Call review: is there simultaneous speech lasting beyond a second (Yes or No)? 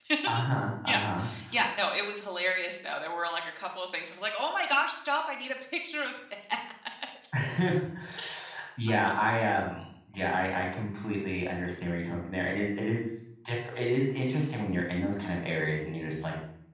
No